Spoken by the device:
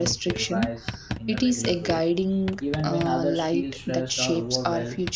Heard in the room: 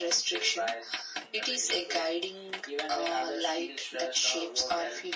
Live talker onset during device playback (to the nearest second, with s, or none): none